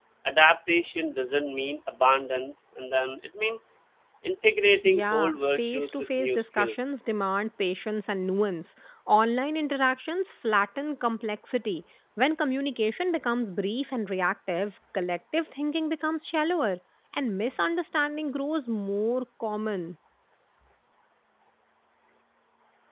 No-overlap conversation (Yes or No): No